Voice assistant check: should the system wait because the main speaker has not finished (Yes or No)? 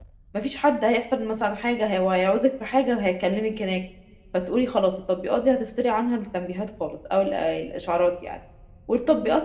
Yes